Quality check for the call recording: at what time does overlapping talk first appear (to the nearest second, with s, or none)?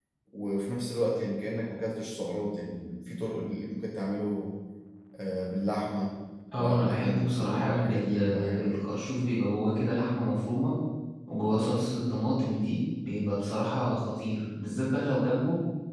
7 s